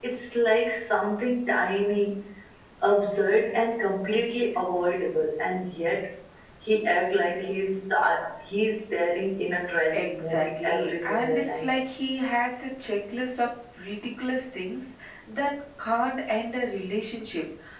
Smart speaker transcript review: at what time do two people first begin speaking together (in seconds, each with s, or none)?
9.9 s